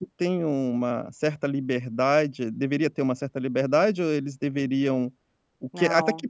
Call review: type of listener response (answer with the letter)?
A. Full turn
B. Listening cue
B